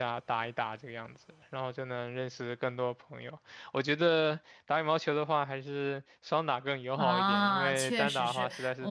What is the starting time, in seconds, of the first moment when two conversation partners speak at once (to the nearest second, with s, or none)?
7 s